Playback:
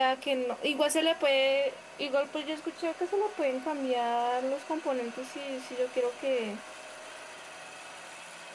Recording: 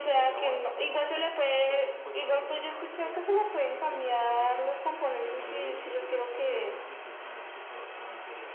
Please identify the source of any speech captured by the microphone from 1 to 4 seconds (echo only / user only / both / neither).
both